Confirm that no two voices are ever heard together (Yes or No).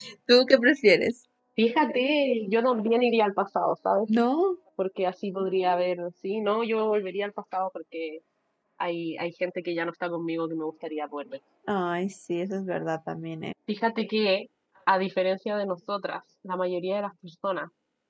Yes